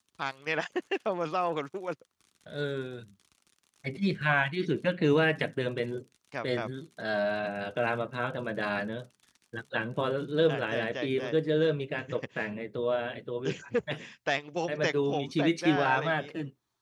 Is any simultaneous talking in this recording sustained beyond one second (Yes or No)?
Yes